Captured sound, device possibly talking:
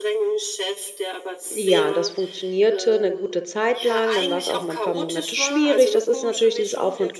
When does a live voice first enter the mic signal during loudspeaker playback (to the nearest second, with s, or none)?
2 s